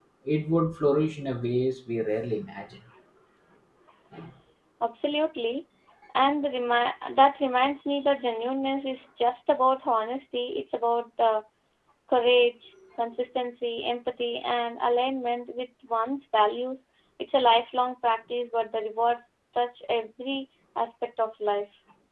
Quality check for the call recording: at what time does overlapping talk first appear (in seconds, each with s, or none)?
none